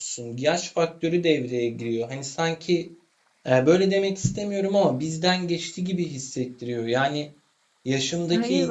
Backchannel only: Yes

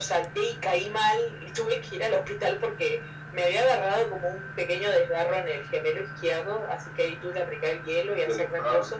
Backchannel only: Yes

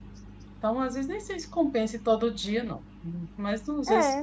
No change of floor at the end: No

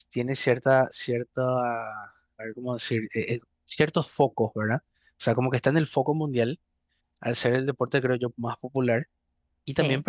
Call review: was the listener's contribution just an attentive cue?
Yes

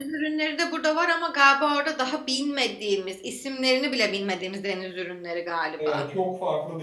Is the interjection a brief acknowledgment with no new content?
No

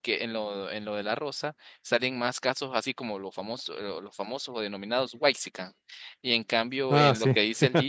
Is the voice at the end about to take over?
No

